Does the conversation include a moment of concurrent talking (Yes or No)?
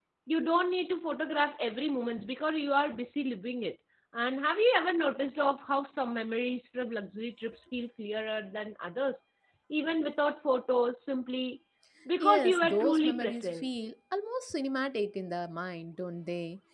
Yes